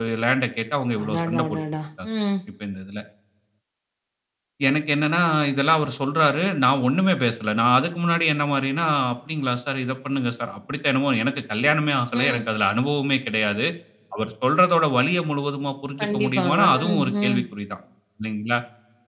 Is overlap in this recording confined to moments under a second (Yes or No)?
No